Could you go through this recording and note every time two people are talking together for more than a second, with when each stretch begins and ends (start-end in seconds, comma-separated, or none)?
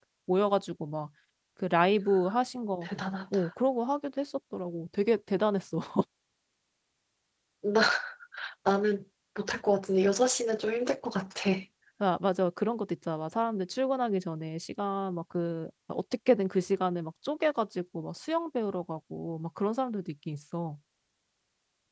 none